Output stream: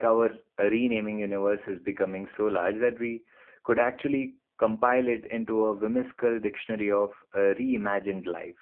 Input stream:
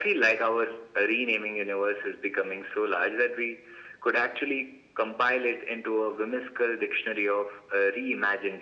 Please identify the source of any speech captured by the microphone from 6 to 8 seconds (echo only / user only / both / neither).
echo only